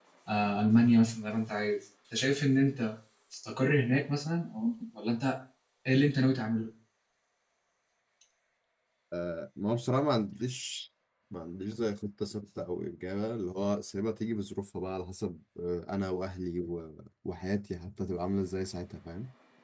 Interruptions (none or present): none